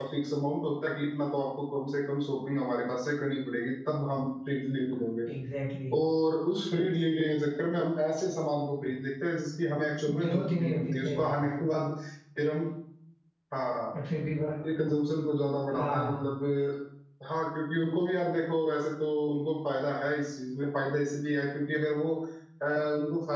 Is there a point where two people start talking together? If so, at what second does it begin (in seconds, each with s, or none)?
10.1 s